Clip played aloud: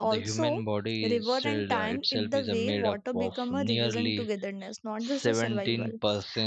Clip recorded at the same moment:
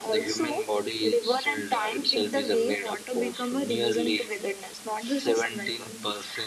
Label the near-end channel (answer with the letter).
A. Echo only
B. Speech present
A